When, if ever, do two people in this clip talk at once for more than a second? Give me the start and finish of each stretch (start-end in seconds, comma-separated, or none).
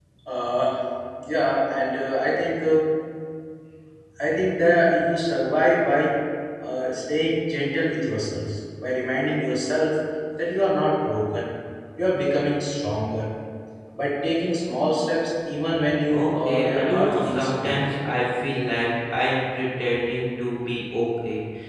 16.1-17.7